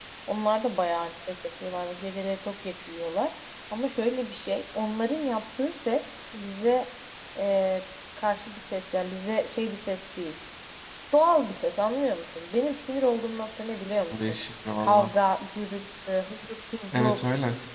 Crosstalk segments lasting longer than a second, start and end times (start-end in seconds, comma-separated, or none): none